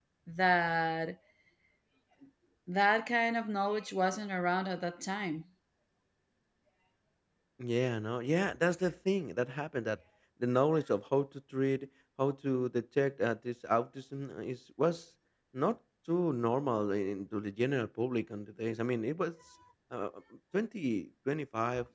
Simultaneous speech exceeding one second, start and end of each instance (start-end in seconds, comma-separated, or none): none